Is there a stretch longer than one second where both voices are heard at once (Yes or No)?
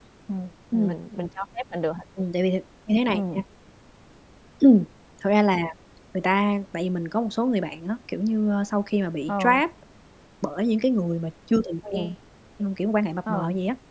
No